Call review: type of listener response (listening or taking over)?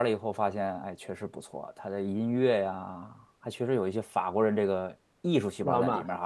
listening